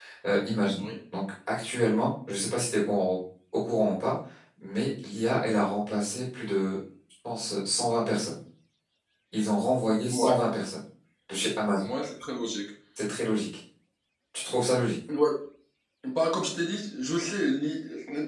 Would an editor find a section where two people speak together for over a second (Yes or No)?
No